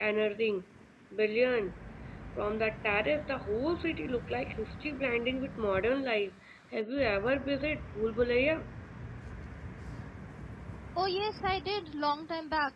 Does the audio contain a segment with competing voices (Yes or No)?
No